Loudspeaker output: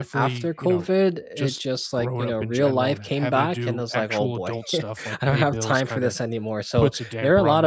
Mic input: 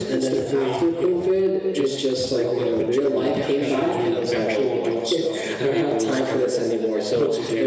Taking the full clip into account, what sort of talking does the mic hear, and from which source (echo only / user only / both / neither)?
both